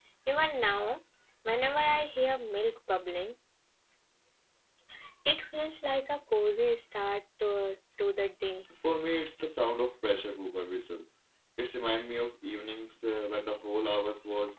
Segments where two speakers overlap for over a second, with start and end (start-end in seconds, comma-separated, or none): none